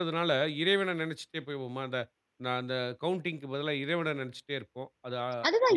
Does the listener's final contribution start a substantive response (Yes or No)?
Yes